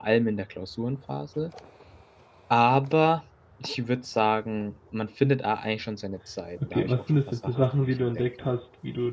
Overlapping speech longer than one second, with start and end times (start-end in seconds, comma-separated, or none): 6.6-8.5